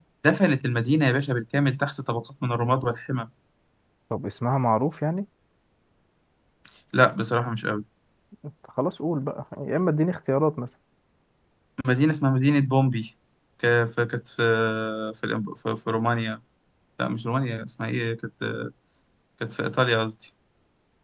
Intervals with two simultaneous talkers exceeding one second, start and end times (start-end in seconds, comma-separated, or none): none